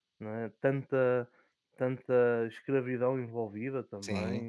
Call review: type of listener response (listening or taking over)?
taking over